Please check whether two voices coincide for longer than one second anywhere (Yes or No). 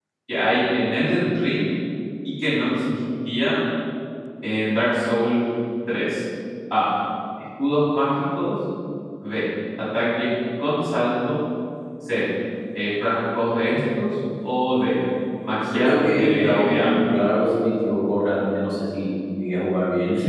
Yes